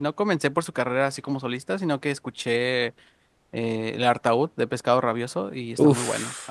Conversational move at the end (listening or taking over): taking over